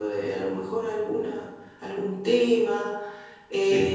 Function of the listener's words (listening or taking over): listening